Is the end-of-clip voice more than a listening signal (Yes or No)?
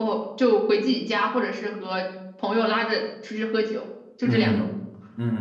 Yes